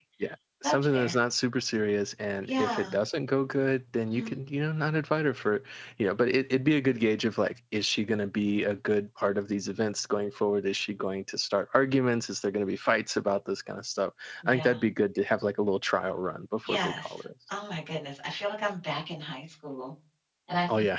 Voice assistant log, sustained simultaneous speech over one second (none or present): none